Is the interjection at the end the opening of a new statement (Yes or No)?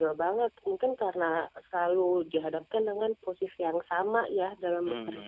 Yes